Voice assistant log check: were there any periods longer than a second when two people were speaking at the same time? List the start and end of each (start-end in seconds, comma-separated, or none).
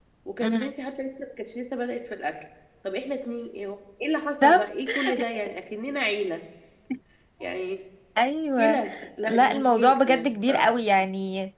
9.3-10.7